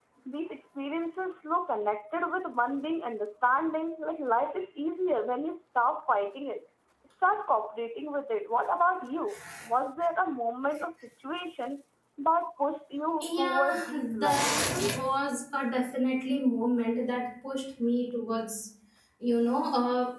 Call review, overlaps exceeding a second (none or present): present